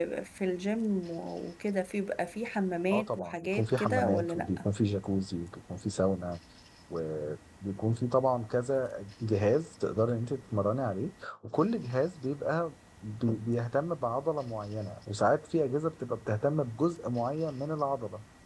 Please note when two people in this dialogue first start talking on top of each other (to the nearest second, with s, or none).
3 s